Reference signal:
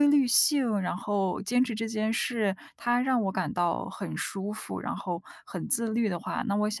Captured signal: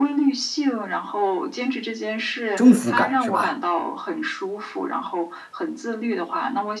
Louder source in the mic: user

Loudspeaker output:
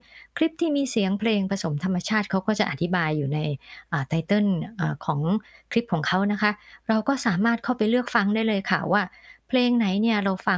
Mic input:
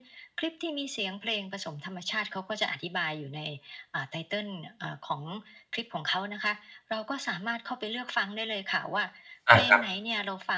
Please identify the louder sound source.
user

